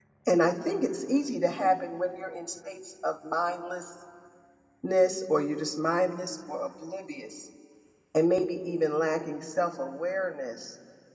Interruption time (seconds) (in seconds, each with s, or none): none